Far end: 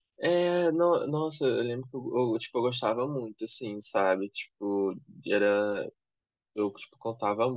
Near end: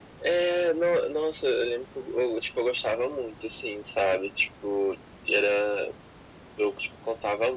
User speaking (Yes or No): No